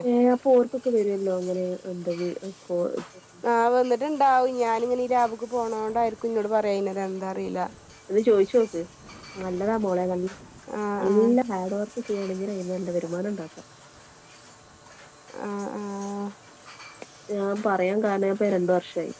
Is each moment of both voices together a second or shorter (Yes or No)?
Yes